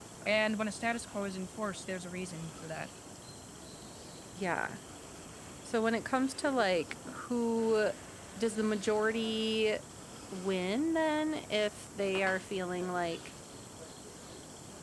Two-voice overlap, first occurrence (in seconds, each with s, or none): none